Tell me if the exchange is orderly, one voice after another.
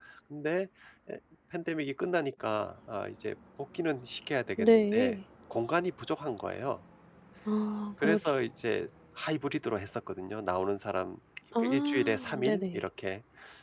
No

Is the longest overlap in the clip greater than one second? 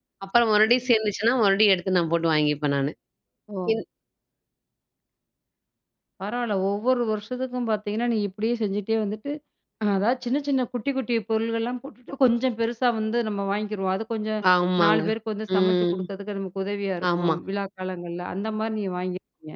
No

